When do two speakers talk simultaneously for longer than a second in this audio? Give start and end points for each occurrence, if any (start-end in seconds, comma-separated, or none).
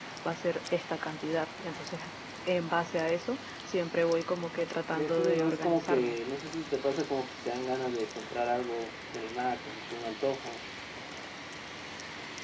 4.9-6.2